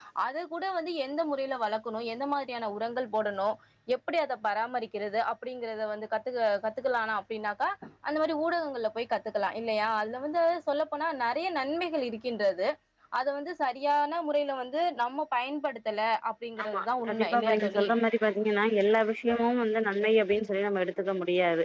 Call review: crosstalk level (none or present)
present